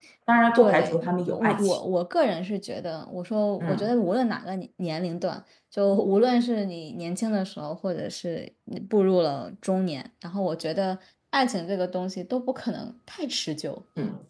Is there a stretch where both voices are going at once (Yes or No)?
Yes